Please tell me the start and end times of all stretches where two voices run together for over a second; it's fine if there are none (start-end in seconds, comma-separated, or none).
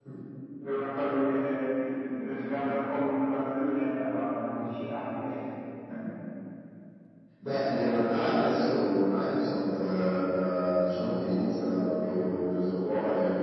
none